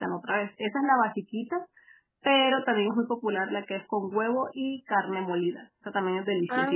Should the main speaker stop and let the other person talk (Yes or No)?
Yes